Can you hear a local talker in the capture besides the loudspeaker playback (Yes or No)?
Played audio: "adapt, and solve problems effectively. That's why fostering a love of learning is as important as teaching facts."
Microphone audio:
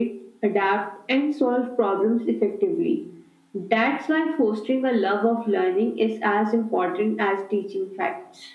No